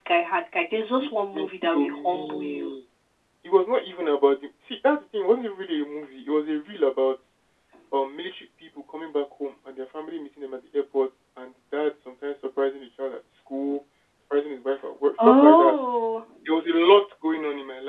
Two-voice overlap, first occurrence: 1.0 s

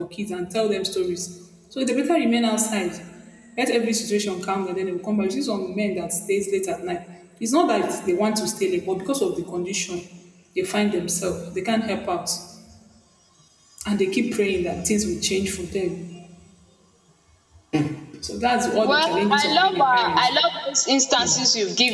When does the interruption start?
18.8 s

